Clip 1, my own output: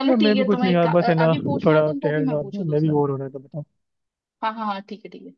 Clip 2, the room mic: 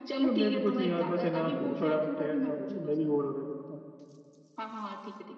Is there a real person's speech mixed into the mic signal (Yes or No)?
No